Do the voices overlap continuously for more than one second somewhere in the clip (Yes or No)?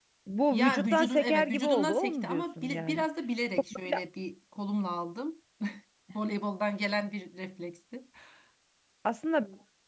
Yes